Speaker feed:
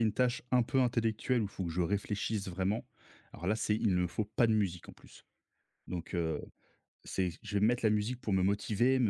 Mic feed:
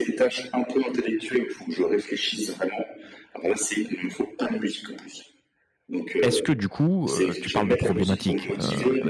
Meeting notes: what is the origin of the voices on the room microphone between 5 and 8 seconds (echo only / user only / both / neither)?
both